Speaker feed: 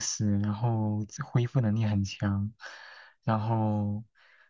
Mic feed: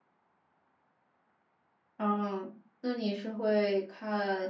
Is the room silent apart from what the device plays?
No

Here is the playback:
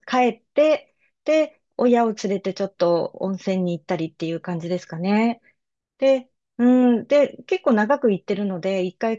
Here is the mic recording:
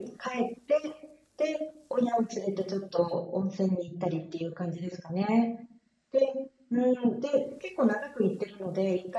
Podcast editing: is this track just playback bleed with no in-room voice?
Yes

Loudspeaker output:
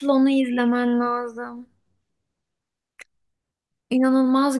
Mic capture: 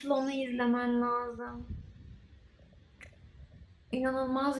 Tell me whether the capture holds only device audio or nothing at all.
Yes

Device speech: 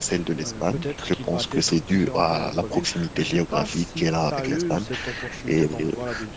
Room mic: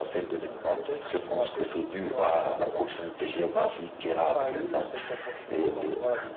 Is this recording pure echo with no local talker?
Yes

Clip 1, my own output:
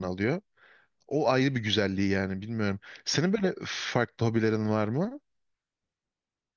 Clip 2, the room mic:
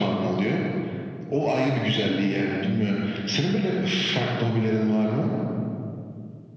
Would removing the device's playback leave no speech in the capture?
Yes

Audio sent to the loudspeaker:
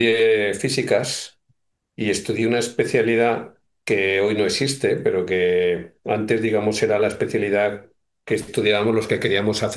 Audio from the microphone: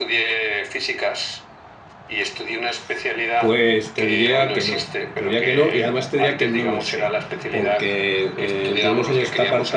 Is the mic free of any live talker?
No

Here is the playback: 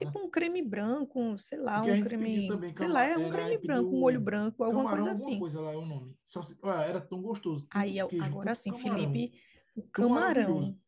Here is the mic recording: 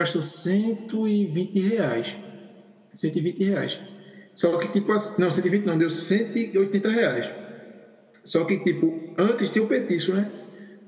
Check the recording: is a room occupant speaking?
Yes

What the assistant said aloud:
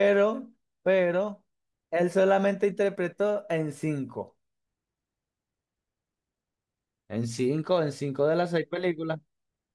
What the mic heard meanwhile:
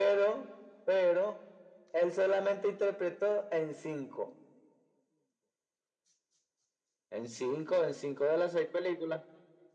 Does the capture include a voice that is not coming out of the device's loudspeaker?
No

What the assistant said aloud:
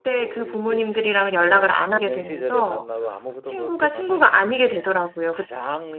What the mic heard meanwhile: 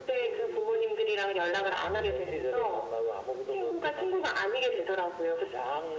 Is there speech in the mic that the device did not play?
Yes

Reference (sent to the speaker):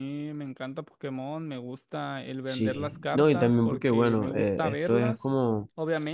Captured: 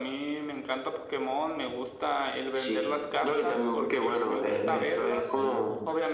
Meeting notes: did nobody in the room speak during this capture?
No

